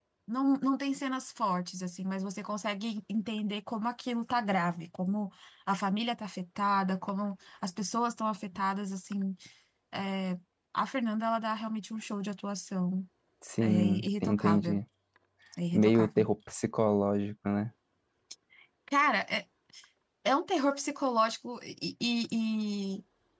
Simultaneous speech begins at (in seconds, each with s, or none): 13.6 s